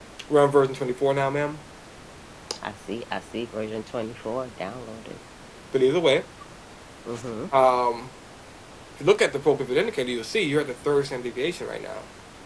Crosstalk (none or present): none